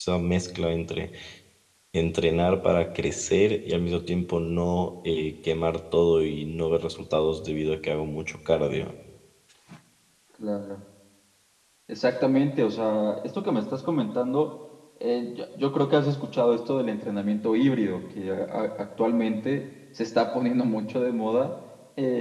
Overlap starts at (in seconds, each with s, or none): none